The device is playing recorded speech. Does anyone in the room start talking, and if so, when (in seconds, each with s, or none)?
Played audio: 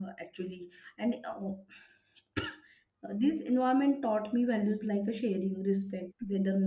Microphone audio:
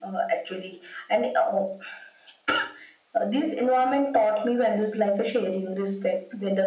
none